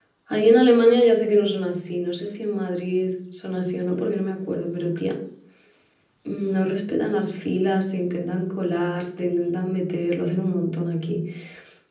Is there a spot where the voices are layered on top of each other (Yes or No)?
No